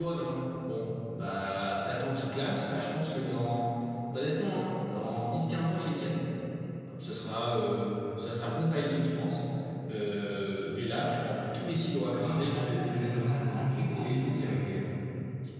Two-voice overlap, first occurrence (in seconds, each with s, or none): 12.2 s